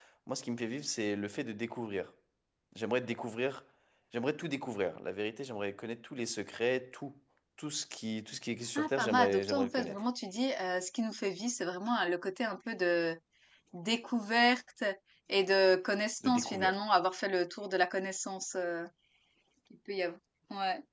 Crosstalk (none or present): present